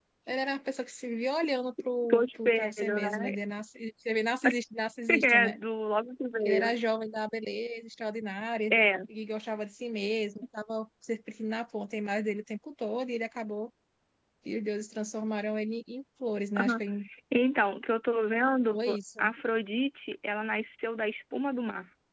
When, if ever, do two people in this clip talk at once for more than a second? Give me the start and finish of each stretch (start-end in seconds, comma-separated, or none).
2.1-3.4